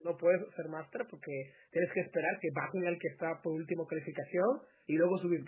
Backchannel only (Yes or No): Yes